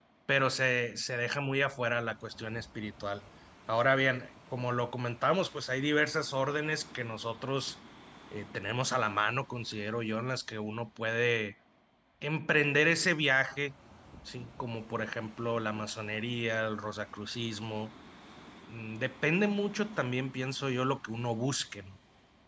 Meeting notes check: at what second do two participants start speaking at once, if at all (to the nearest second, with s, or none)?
none